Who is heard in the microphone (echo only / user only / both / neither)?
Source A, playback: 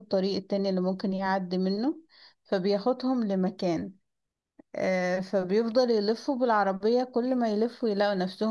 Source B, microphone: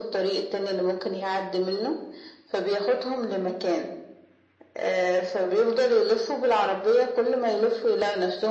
echo only